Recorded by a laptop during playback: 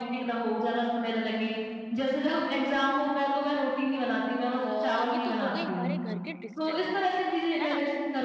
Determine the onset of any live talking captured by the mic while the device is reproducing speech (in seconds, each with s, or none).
4.5 s